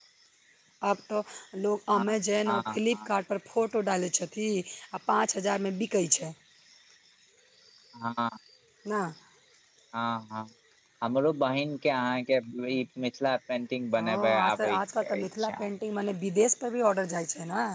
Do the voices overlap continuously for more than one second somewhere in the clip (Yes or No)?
Yes